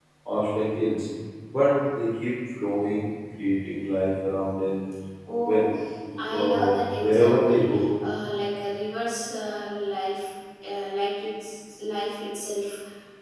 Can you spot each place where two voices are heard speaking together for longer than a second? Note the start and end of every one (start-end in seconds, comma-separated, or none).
6.3-7.8